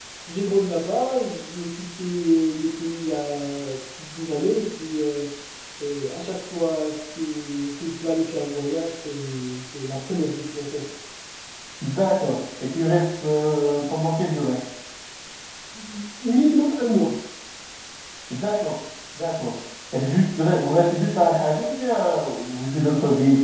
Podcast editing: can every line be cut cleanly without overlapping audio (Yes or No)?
Yes